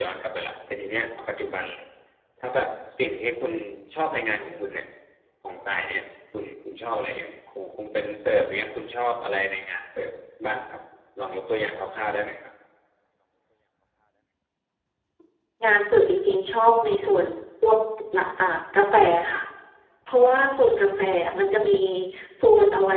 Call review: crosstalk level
none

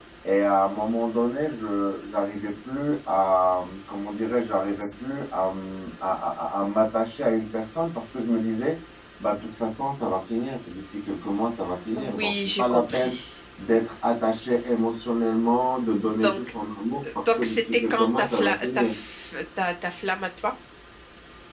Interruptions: present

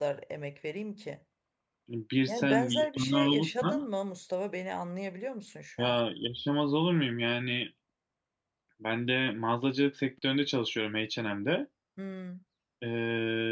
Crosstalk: present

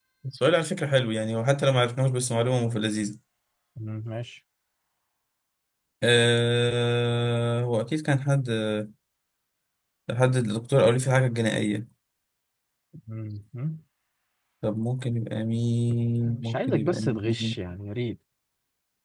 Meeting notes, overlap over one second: present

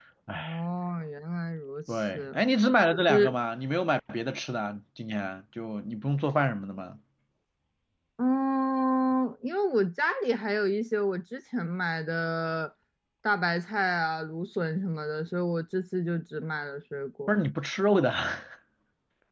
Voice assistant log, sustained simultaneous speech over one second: none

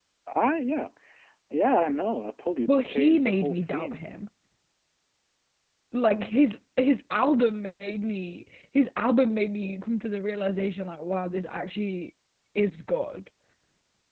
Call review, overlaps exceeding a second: present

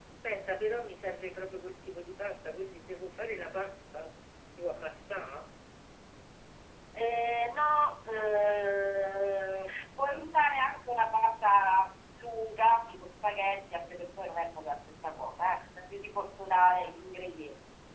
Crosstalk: none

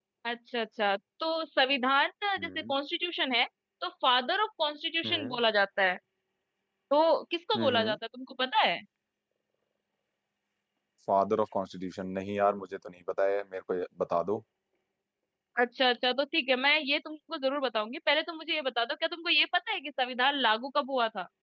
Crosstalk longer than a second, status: none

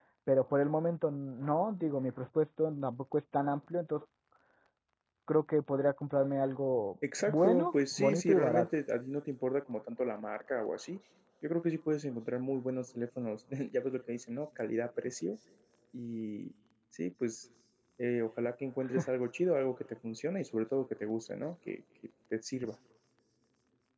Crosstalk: present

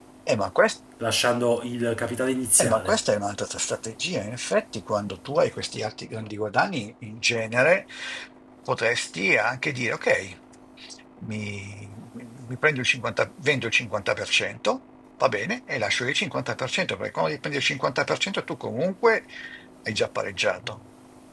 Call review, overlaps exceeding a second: none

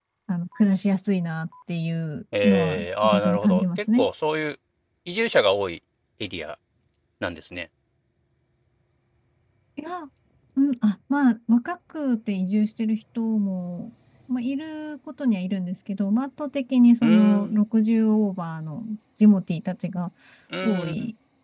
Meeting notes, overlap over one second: present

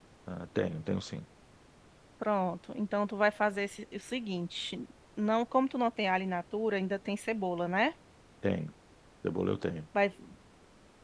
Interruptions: none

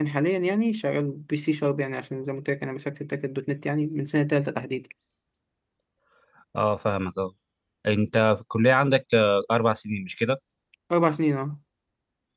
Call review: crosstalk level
none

